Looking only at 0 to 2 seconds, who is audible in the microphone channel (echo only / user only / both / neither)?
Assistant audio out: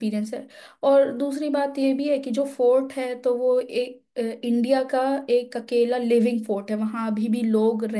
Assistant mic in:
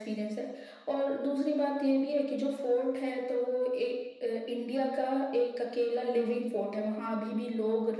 echo only